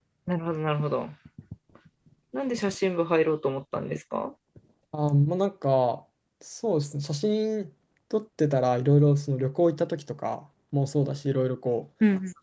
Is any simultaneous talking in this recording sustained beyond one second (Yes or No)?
No